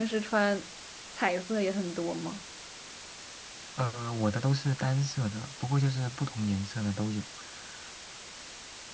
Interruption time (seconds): none

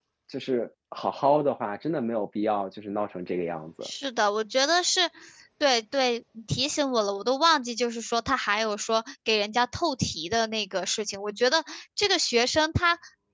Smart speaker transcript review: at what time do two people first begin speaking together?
none

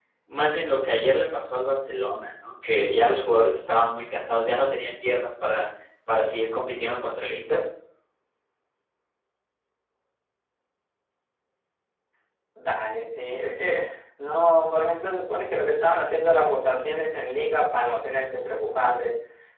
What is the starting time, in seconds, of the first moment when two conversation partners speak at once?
none

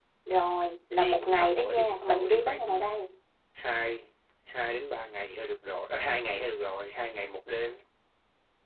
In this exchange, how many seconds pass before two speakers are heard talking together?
1 s

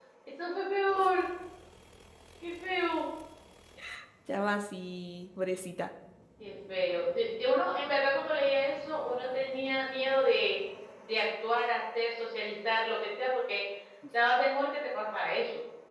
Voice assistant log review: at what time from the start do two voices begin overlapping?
none

